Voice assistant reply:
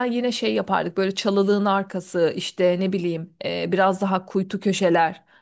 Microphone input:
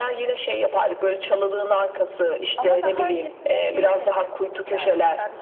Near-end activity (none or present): present